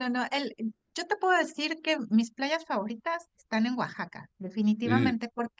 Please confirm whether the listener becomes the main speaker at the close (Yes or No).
No